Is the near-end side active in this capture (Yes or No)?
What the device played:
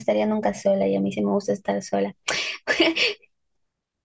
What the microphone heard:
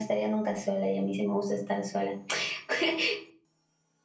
No